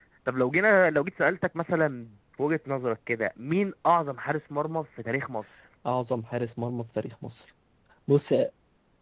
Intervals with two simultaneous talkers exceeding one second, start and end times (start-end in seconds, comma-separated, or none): none